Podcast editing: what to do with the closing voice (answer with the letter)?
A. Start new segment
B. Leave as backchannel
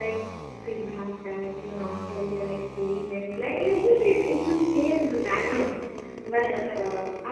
B